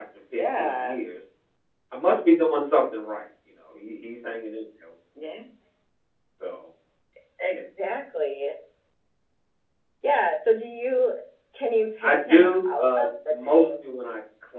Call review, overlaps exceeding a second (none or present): present